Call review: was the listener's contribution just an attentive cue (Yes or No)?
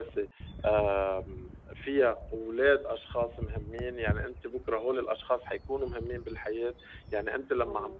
Yes